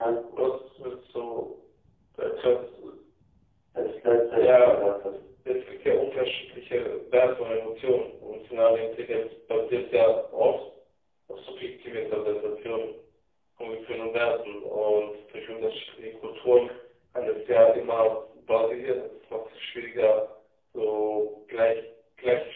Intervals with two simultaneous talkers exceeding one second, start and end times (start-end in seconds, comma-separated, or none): none